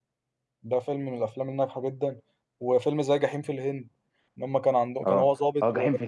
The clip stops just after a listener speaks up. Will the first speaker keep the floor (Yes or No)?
No